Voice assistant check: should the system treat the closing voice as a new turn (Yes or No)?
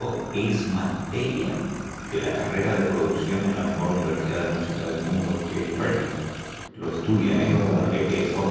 No